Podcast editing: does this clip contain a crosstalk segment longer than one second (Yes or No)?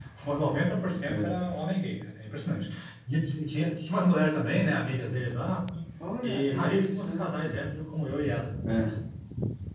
Yes